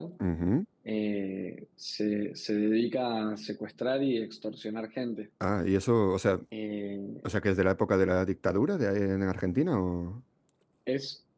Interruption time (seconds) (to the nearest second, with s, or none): none